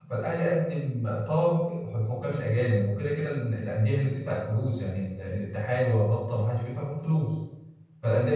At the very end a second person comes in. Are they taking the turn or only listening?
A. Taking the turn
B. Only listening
B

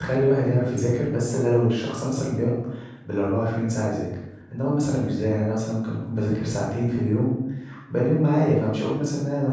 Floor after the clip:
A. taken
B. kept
B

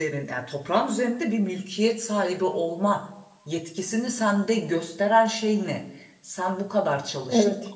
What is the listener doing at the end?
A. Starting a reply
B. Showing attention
B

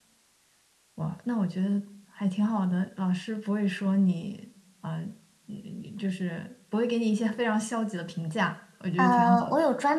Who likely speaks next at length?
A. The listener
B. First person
A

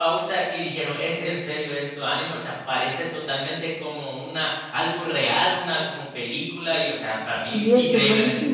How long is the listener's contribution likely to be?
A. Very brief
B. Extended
B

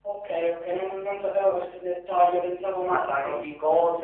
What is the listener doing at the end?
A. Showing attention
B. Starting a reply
B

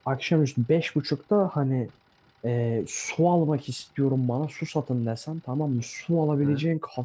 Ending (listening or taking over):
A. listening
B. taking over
A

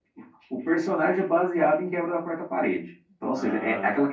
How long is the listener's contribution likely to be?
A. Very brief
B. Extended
A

